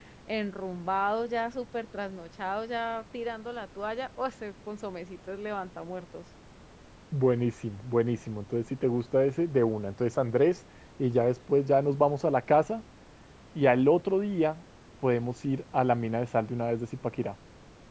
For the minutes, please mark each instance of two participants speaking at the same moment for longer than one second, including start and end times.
none

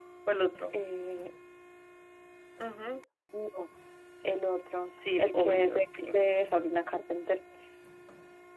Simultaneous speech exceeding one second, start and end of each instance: 4.8-6.1

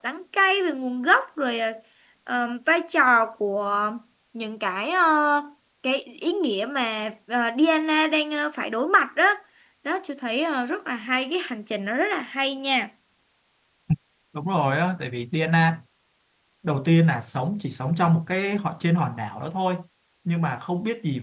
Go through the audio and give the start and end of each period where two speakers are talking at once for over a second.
none

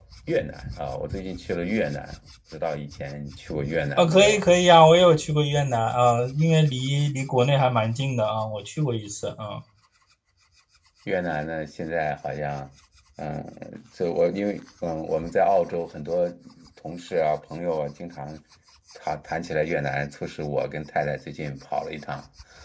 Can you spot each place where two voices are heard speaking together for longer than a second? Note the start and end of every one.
none

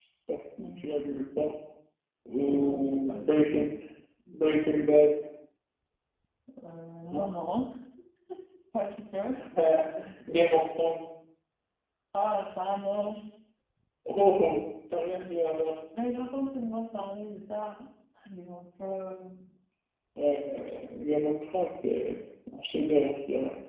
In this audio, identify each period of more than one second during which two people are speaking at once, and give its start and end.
2.4-3.7

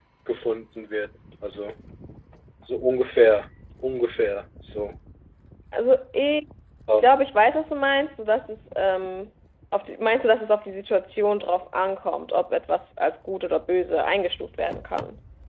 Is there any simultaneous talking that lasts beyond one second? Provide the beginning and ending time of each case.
none

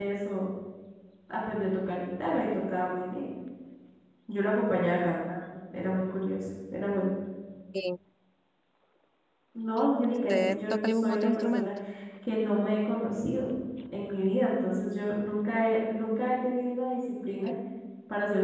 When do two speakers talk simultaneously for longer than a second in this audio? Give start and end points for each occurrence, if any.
10.3-11.7

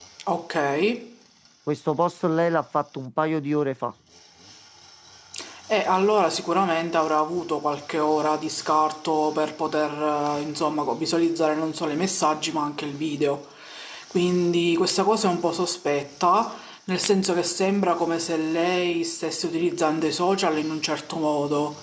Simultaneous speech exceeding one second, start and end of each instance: none

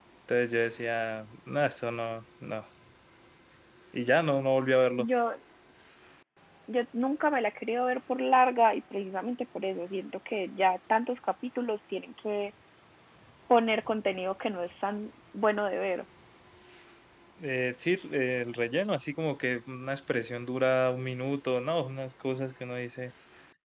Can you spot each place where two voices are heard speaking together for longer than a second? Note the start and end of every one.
none

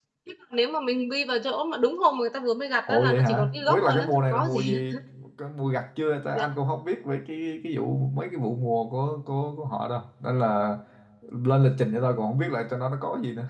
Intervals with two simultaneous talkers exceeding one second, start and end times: 2.9-4.9

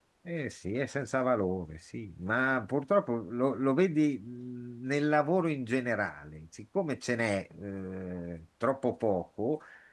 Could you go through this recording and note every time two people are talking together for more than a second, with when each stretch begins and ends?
none

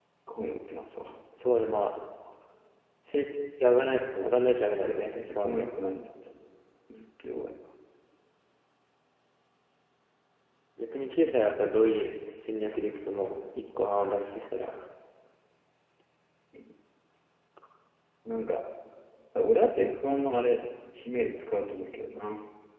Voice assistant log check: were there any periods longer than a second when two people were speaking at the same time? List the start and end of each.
4.2-5.7

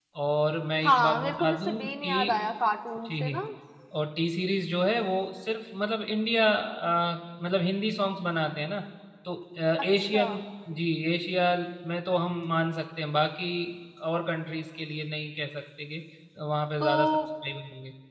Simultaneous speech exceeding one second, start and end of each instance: 0.8-2.4

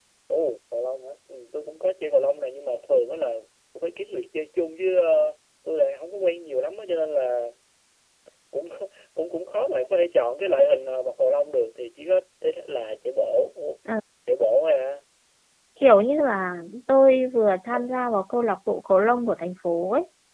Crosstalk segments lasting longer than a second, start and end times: none

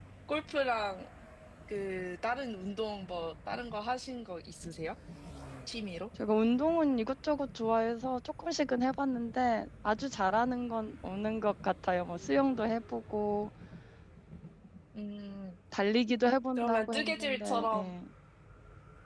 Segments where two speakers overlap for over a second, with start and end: 16.6-17.9

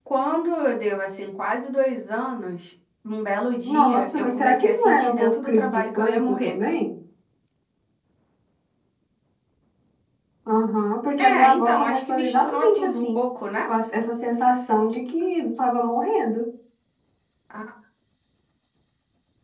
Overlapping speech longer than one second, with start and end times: 3.6-6.5, 11.2-13.2

